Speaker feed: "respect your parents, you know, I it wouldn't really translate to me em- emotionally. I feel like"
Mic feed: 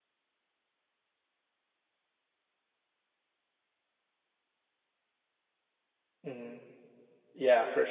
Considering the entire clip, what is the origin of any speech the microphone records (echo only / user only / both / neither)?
user only